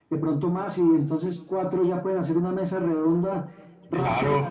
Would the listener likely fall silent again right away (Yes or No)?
Yes